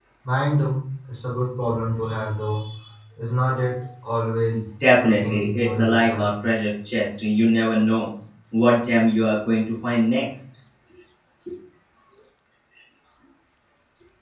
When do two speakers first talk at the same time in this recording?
5 s

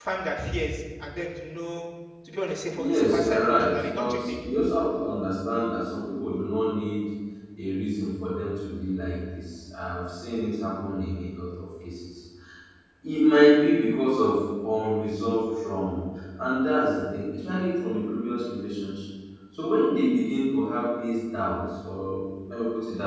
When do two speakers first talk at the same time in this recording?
3 s

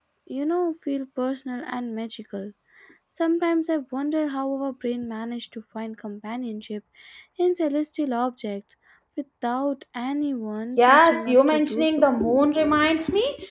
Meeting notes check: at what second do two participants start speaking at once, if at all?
11 s

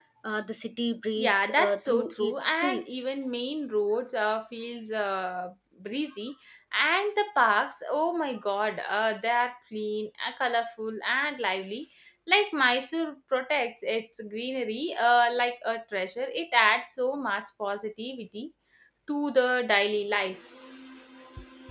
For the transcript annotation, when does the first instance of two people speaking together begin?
1 s

